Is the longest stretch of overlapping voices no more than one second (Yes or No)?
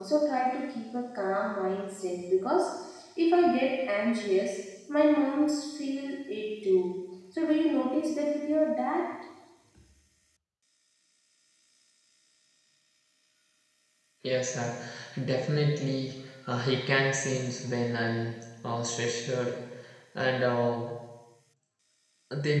Yes